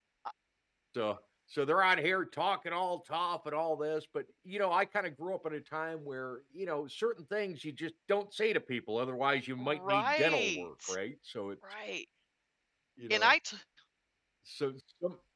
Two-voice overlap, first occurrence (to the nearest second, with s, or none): 10 s